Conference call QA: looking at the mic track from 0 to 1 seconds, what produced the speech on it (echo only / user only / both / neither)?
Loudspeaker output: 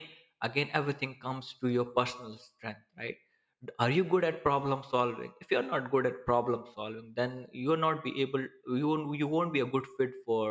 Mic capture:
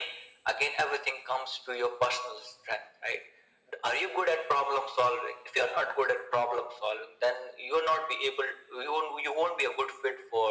echo only